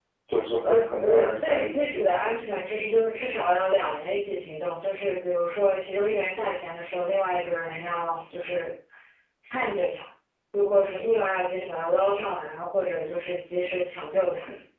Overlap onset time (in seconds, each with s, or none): 0.6 s